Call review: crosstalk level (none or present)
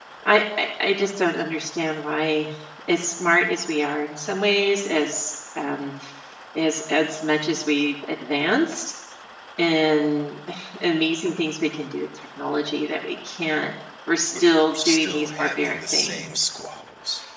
present